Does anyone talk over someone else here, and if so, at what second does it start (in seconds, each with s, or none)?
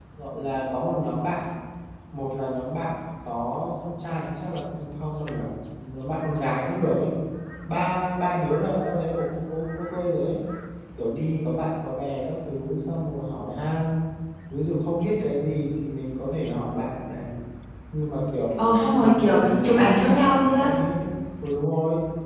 18.6 s